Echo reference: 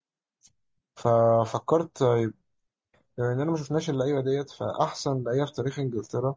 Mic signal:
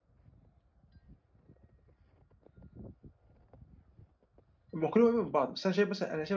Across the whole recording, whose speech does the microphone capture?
user only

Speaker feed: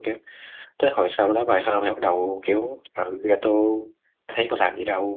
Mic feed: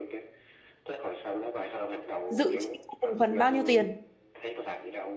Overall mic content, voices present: both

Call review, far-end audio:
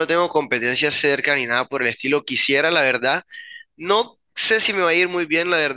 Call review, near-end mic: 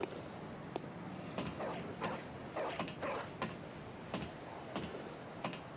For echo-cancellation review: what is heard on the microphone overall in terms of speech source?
neither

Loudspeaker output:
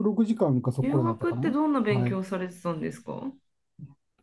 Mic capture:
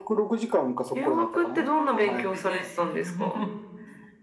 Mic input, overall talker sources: both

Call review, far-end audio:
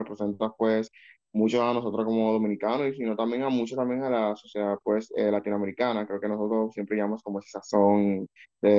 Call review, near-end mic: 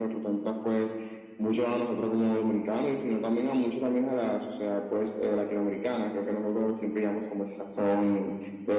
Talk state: echo only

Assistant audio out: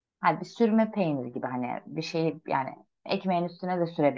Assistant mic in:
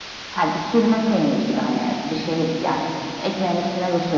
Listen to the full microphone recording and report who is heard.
echo only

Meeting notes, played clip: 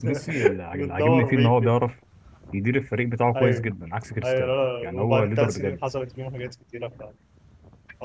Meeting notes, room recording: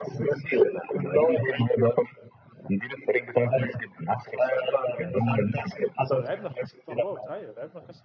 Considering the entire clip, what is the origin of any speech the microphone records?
both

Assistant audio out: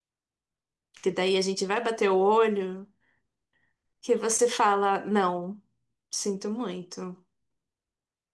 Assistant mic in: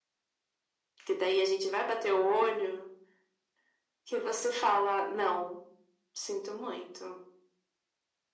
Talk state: echo only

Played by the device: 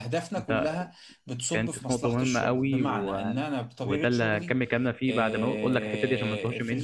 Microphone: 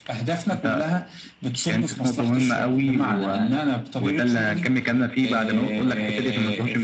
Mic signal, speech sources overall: echo only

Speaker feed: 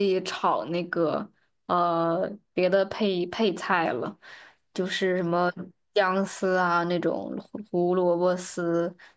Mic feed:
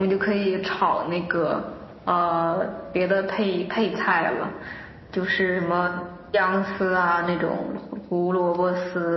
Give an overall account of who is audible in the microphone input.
echo only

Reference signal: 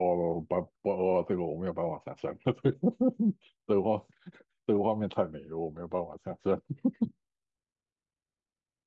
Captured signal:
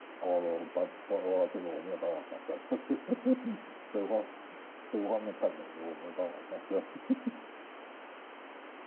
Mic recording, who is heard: echo only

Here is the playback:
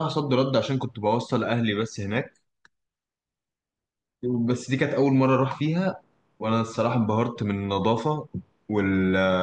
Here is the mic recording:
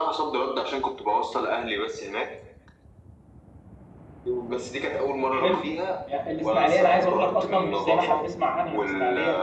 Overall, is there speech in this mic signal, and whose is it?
both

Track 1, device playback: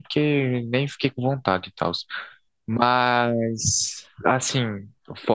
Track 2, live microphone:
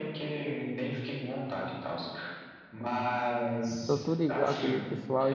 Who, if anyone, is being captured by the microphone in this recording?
both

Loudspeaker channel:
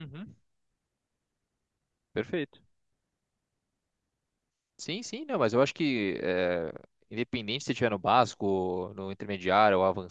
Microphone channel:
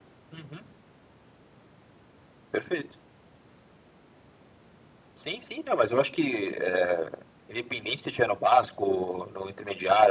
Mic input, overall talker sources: echo only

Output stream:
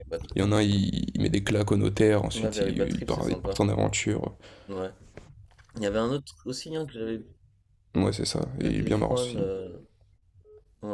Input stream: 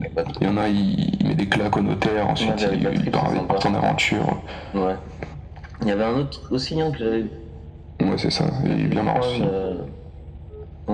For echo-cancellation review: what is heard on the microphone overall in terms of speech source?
echo only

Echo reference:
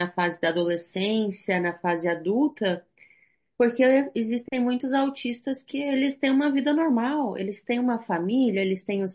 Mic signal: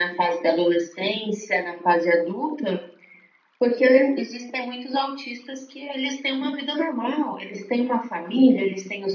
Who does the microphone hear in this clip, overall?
echo only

